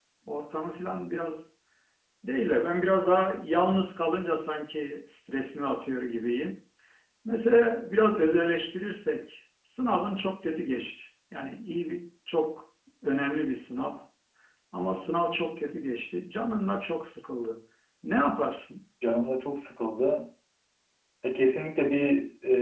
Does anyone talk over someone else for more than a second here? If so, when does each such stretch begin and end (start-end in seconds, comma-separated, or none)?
none